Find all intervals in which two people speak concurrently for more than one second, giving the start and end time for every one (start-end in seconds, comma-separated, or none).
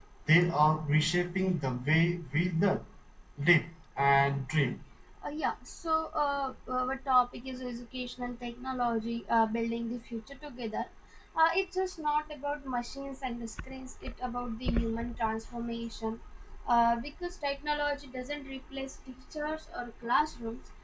none